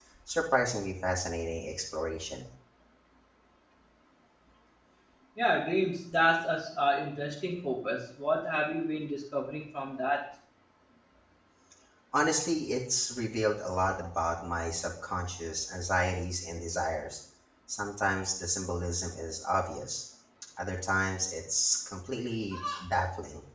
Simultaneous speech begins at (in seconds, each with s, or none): none